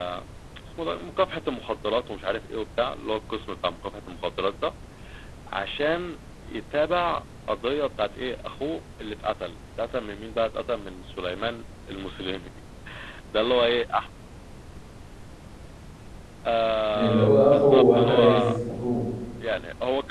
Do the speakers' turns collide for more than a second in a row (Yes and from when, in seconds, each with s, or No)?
Yes, from 16.9 s